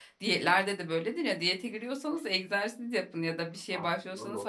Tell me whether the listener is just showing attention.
Yes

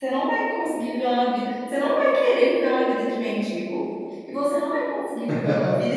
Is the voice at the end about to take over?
No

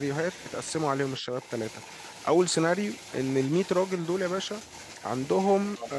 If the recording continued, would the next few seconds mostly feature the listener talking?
No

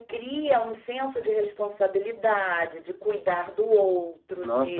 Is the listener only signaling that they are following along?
No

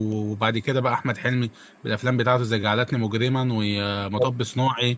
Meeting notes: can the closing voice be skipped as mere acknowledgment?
Yes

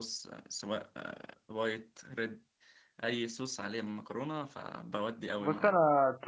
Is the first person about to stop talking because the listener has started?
Yes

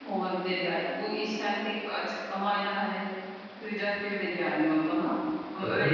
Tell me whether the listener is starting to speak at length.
No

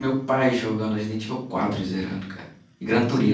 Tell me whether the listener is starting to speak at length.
Yes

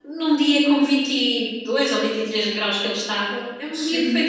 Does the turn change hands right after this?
Yes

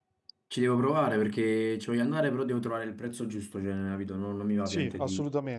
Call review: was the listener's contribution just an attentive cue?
No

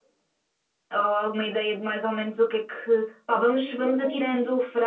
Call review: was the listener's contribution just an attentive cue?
Yes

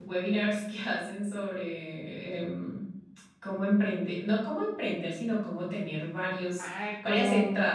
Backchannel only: No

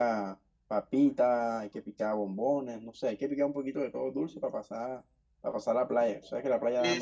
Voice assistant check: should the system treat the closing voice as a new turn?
Yes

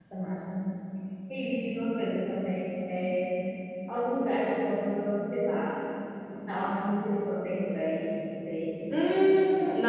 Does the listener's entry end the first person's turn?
Yes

